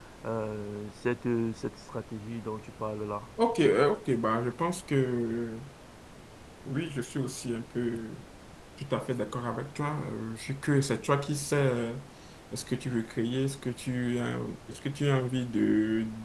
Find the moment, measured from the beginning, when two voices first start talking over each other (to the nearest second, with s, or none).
none